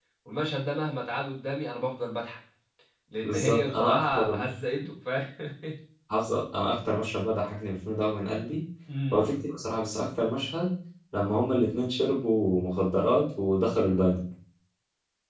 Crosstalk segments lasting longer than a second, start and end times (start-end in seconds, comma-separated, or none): 3.2-4.4